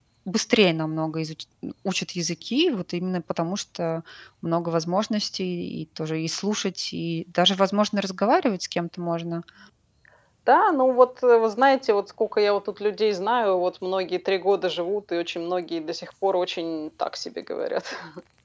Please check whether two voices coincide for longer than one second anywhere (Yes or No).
No